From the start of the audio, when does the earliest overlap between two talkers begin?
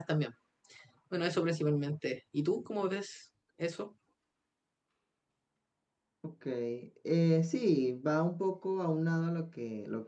none

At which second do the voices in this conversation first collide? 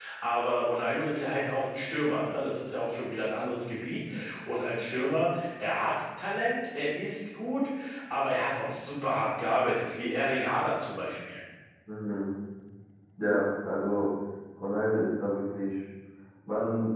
none

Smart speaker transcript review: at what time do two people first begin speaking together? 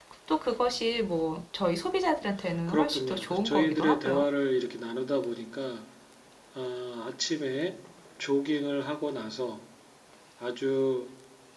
2.7 s

